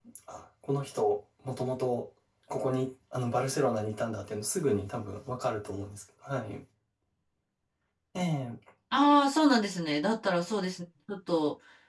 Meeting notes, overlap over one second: none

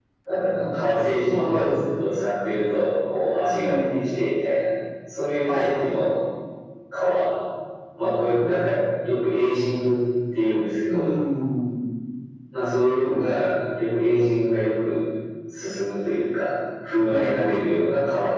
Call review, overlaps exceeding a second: present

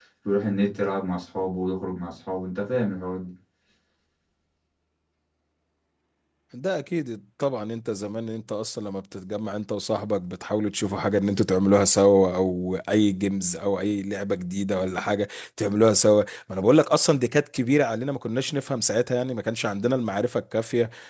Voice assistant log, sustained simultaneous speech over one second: none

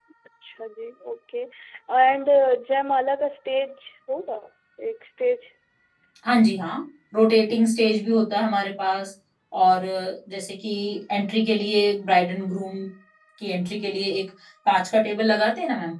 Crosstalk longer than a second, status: none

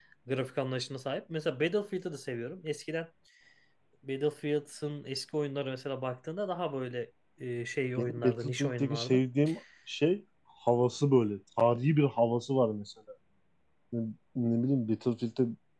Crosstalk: present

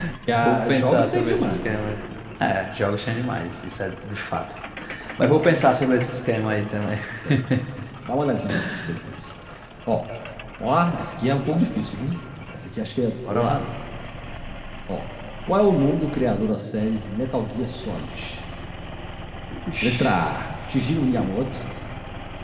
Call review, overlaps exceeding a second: present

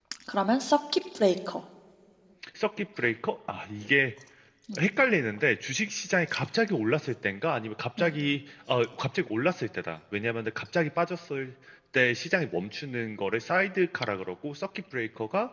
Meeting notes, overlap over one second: none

